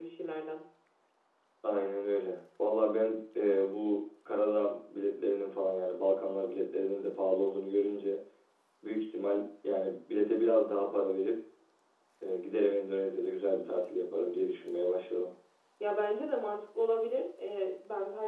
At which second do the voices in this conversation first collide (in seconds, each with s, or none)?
none